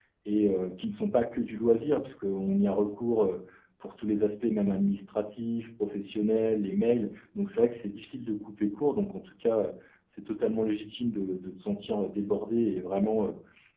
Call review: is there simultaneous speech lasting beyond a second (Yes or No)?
No